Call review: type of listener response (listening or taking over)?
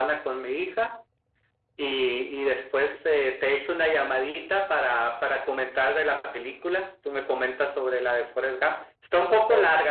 listening